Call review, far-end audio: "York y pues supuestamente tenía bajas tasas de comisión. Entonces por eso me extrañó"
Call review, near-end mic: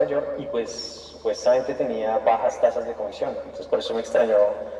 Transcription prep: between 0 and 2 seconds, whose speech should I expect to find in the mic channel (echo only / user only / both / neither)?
echo only